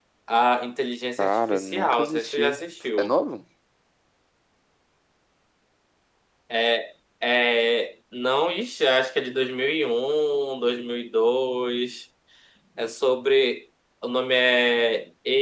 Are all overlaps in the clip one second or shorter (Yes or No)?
No